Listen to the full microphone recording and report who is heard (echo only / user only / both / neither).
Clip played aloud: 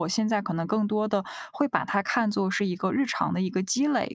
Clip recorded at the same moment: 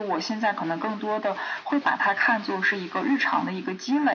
echo only